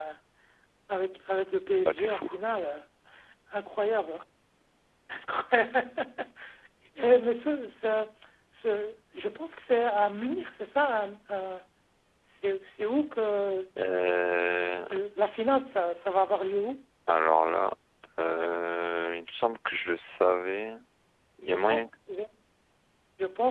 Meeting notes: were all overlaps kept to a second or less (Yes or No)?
Yes